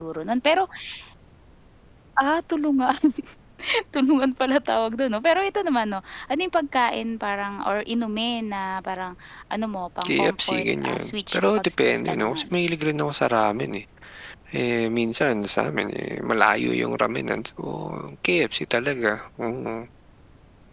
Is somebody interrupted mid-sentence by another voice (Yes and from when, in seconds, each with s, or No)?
Yes, from 10.1 s